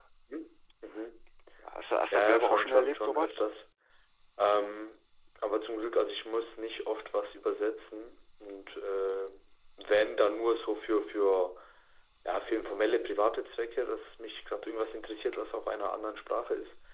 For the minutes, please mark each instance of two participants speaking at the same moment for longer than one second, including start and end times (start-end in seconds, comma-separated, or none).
2.1-3.3